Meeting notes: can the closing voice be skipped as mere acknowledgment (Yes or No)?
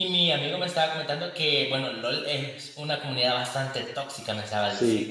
No